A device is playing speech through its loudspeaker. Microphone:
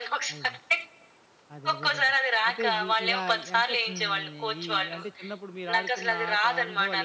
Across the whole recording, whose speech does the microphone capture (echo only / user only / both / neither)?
both